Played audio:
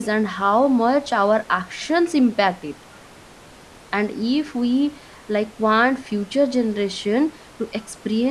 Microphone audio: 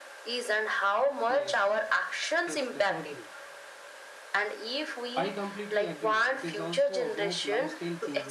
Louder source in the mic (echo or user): echo